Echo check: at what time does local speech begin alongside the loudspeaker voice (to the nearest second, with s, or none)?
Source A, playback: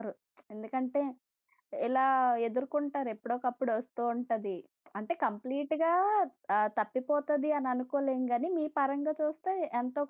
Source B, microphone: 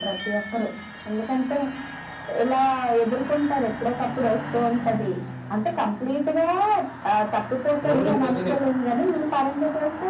8 s